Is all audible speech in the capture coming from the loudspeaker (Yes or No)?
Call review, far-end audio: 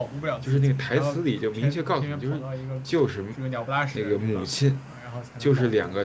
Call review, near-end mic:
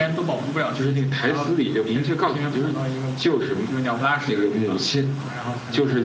Yes